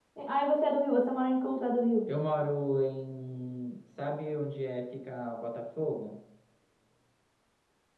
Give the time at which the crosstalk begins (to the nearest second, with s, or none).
none